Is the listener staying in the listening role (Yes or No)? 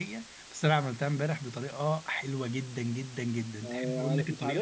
No